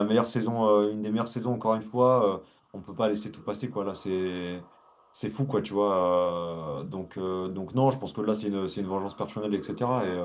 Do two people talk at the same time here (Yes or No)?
No